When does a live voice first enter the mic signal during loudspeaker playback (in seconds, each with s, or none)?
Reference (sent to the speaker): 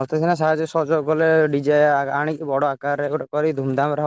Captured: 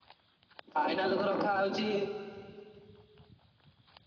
0.8 s